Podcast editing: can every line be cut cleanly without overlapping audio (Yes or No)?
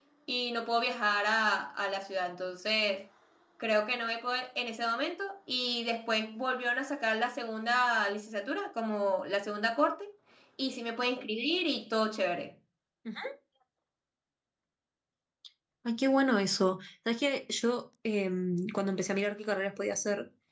Yes